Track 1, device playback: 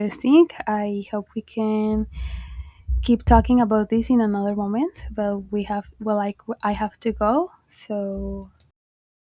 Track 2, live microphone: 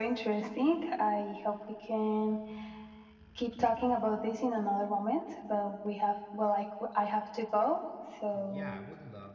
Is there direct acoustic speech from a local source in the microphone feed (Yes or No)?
Yes